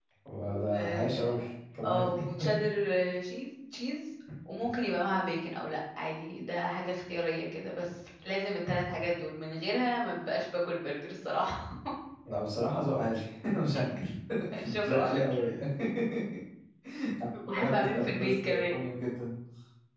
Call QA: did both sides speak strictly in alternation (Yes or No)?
No